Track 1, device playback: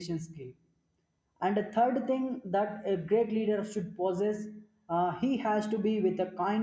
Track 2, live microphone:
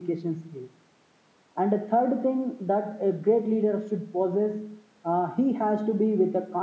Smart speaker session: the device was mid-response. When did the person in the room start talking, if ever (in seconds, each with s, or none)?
none